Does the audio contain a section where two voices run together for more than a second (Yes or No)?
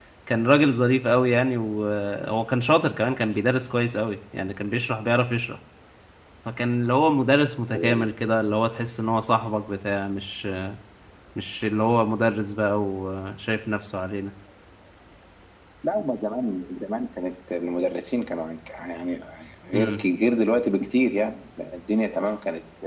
No